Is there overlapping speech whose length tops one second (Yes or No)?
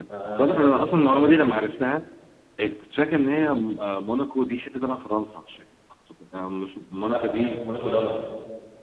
Yes